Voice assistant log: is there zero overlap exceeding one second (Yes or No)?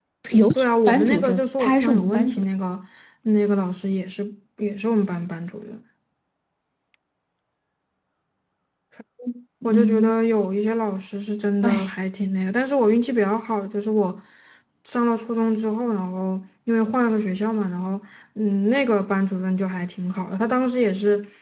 No